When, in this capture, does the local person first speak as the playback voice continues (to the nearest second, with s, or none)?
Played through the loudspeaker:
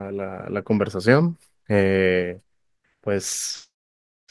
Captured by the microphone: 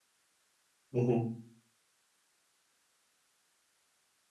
1 s